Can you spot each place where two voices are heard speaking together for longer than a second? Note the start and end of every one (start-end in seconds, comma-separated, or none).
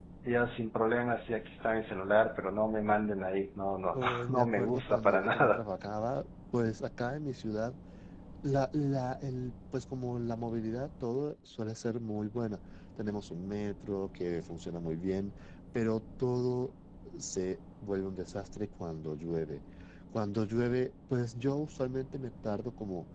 3.9-5.6